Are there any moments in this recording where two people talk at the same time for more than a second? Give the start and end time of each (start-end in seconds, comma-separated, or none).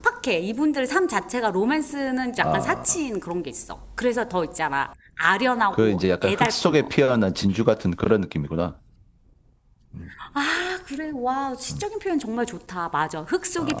5.7-7.0